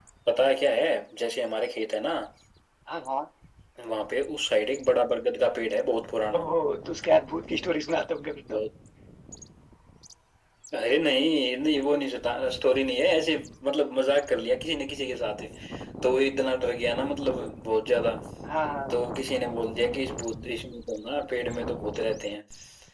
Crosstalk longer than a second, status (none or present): none